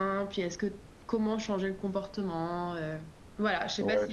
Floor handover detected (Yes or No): Yes